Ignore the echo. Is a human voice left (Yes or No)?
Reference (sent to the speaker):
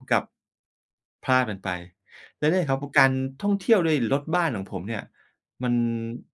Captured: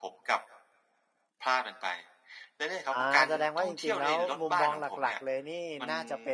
Yes